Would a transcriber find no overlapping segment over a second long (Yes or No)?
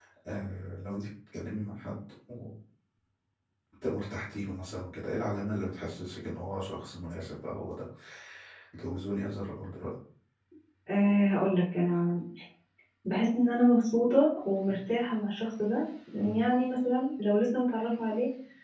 Yes